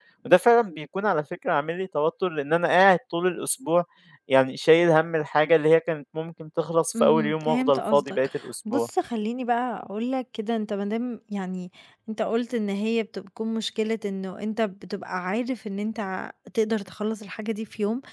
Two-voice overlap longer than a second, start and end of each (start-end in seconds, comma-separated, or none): 7.0-8.2